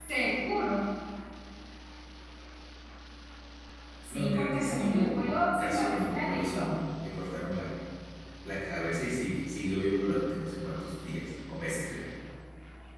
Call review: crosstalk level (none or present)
present